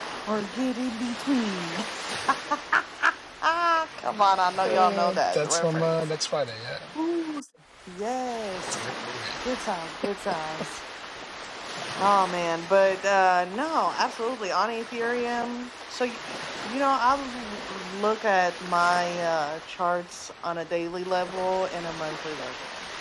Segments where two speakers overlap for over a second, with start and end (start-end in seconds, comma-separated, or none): 4.6-5.9